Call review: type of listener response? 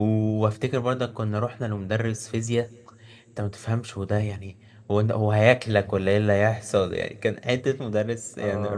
taking over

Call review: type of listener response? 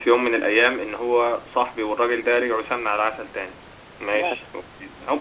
listening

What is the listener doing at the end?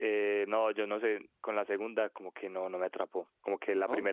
listening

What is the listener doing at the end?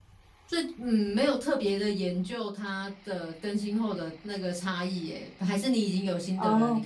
taking over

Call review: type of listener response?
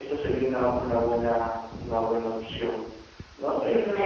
taking over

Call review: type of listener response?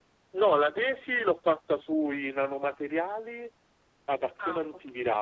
listening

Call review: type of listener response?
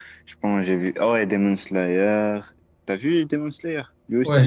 taking over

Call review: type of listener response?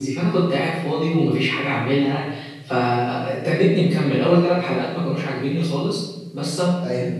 listening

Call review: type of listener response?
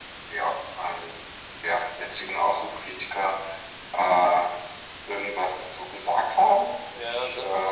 taking over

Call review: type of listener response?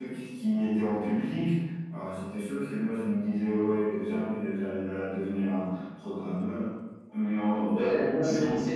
taking over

